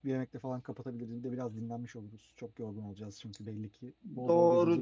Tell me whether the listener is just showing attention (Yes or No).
No